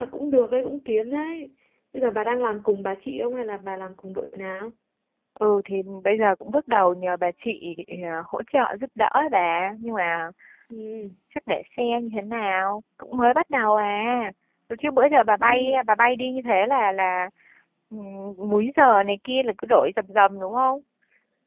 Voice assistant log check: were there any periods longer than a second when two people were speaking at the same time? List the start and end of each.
none

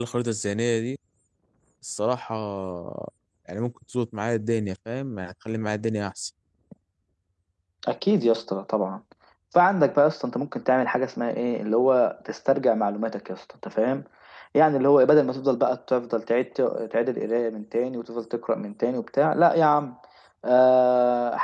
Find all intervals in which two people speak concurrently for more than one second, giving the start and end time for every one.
none

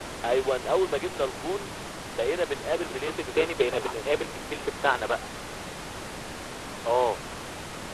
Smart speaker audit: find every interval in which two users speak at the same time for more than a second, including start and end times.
2.7-3.9

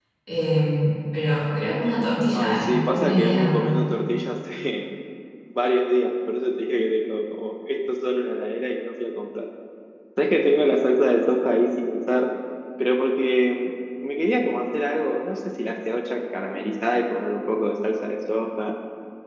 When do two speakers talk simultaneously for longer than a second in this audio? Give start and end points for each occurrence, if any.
2.3-3.9

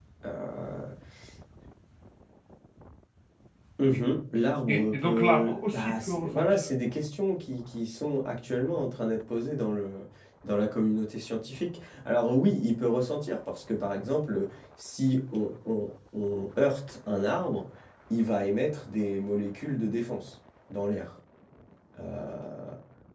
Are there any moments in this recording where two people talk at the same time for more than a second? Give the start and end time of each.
4.7-6.6

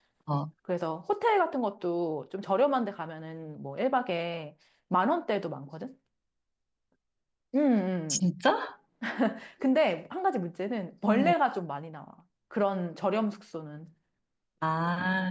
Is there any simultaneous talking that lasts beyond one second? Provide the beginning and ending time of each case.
none

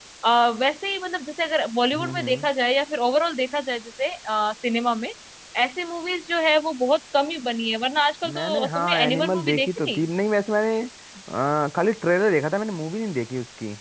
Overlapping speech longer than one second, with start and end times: 8.3-10.0

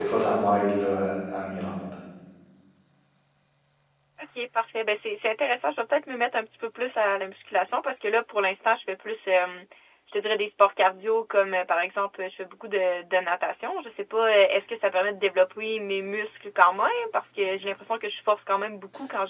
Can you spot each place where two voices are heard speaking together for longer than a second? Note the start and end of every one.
none

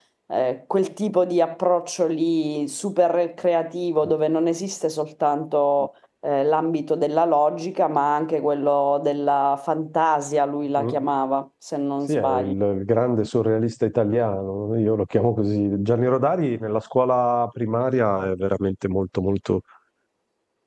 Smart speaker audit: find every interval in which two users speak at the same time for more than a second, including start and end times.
none

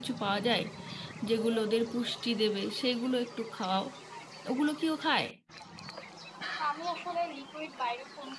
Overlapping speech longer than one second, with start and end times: none

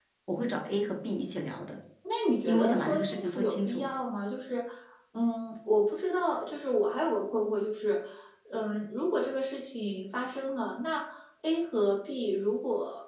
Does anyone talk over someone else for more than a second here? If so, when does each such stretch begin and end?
2.4-3.9

